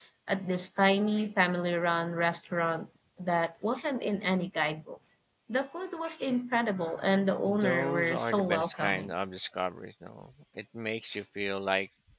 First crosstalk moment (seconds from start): 7.4 s

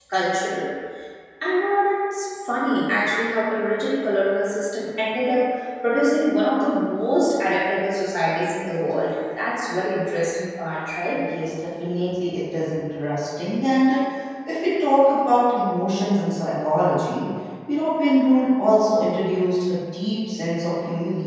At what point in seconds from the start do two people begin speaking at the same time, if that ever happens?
none

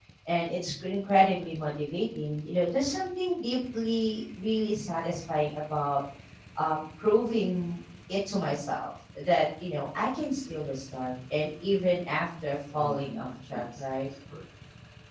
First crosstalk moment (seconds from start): 12.7 s

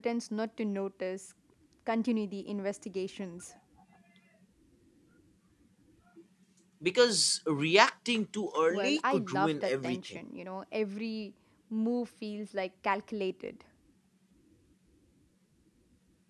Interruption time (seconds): 8.7 s

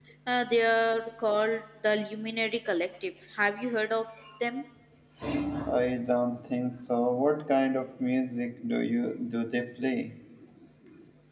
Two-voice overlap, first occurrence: none

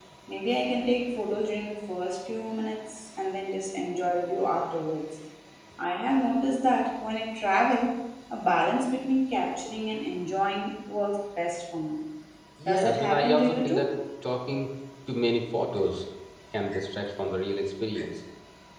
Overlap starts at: 12.7 s

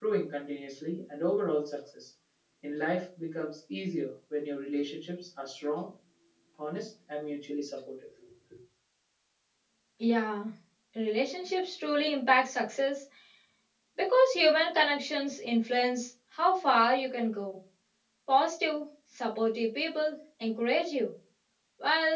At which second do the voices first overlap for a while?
none

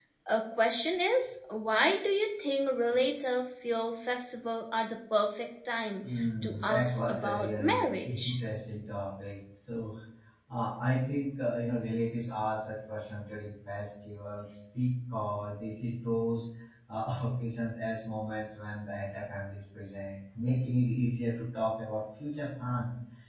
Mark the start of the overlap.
6.0 s

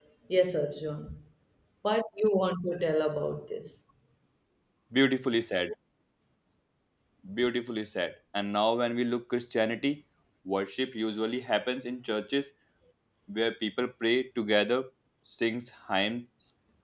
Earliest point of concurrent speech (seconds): none

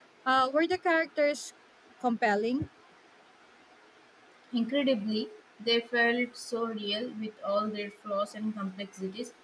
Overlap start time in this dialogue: none

